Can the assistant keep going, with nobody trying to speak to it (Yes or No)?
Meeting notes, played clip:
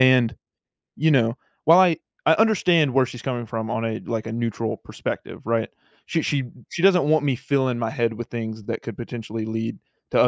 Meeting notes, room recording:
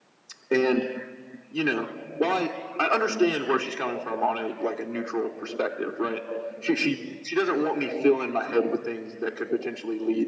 Yes